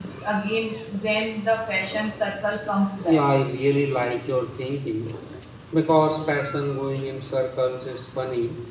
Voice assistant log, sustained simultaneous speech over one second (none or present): none